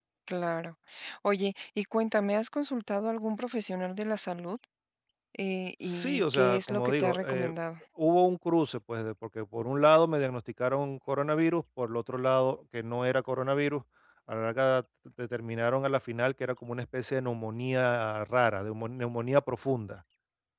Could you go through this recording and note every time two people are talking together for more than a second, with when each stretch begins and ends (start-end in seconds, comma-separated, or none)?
5.8-7.5